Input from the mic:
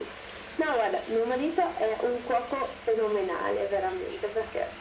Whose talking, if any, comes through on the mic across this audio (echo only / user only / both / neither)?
echo only